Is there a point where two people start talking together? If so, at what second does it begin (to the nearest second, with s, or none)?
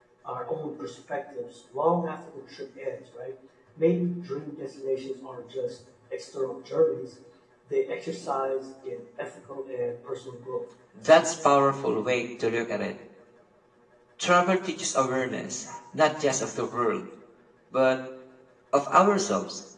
none